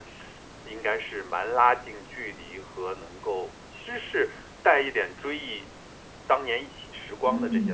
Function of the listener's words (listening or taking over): taking over